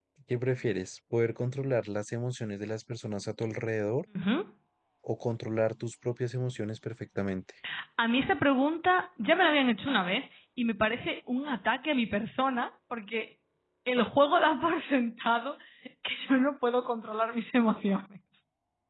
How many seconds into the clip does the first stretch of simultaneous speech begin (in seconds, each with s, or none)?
none